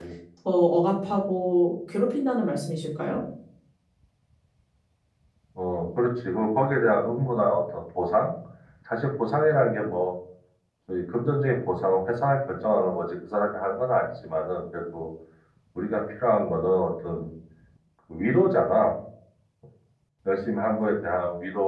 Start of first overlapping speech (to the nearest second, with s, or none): none